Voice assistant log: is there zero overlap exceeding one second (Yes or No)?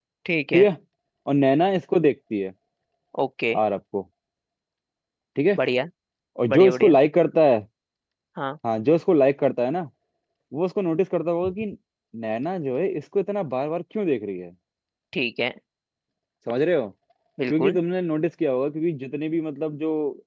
Yes